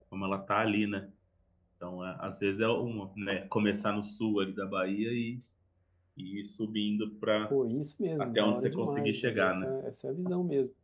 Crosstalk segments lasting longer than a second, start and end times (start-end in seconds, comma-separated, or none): 8.2-9.7